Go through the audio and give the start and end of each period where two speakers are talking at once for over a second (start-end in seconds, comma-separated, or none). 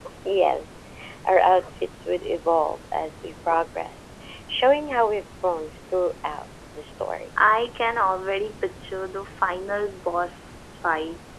none